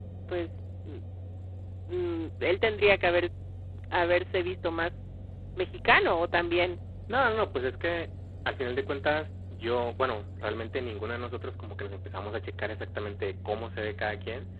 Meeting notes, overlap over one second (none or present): none